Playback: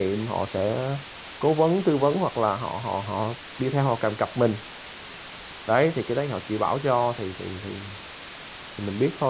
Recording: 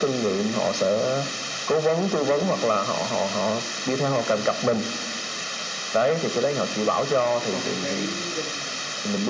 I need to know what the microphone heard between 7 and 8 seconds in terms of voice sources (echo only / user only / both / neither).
both